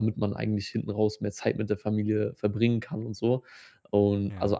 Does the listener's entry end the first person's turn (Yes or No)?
No